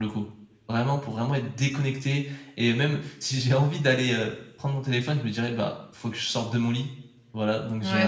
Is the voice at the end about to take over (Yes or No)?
Yes